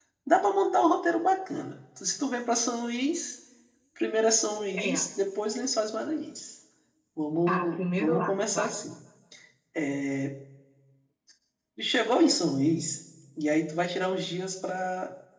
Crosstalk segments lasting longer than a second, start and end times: 7.5-8.7

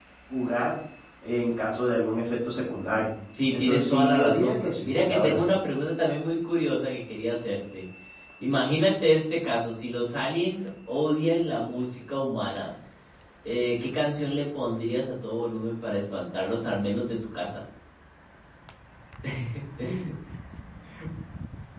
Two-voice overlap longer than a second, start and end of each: 3.5-5.4

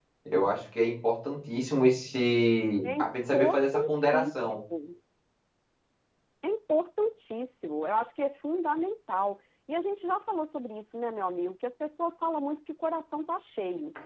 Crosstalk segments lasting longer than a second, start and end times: 2.8-4.6

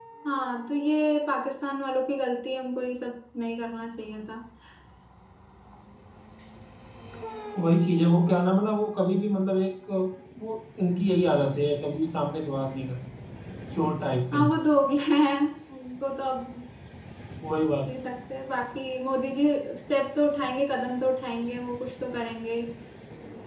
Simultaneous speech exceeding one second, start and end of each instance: none

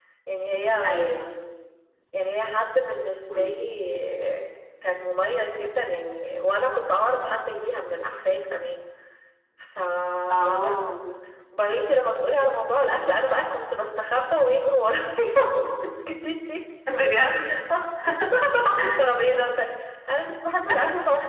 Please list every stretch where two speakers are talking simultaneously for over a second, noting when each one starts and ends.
none

